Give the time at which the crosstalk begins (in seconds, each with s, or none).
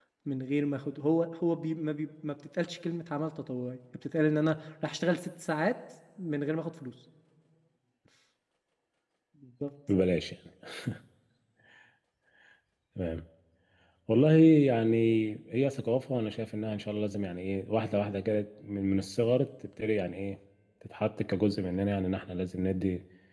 none